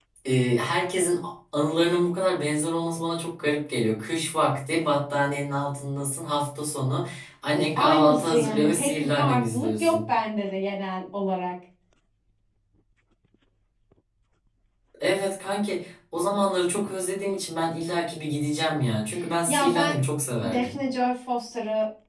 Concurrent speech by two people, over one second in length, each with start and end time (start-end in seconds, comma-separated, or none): 7.8-10.1